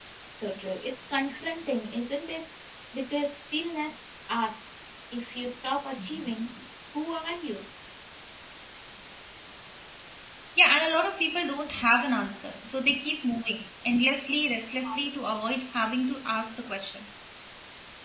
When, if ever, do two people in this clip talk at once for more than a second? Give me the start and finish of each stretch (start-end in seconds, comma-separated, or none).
none